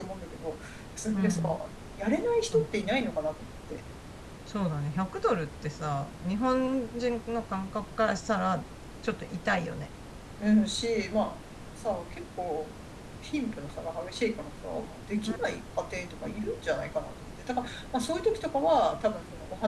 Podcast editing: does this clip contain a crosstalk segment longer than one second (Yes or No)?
No